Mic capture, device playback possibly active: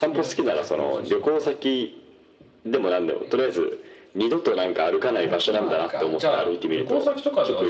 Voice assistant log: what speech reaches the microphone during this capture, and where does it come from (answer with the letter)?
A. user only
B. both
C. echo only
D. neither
B